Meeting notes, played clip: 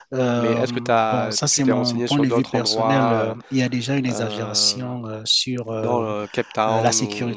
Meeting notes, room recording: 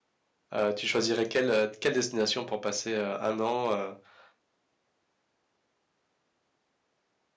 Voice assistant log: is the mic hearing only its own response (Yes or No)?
No